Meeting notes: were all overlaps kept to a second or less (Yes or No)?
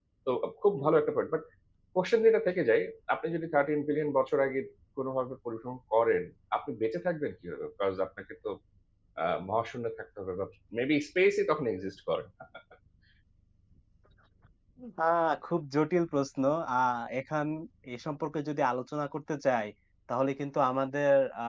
Yes